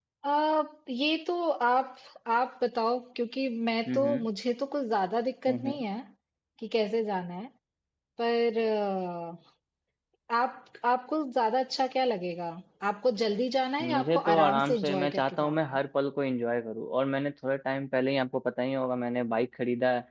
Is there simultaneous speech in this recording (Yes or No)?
Yes